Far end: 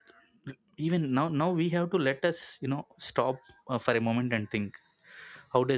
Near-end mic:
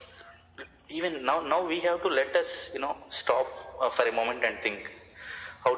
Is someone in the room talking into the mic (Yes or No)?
No